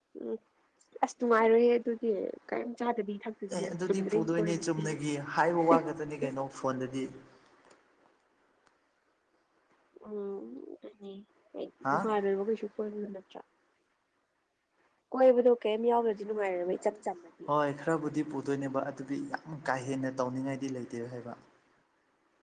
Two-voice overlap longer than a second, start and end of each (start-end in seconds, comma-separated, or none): 3.6-4.8